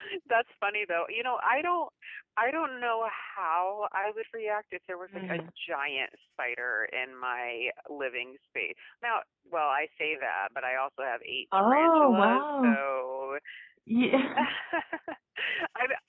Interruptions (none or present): present